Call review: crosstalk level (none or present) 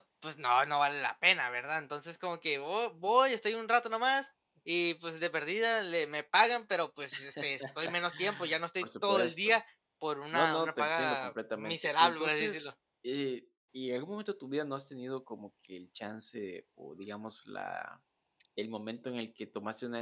present